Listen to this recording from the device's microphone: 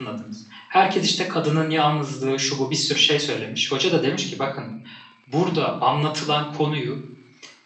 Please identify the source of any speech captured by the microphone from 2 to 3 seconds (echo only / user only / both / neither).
user only